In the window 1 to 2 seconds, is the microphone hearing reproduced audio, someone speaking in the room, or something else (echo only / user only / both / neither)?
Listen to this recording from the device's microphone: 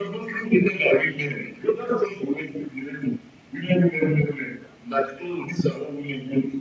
echo only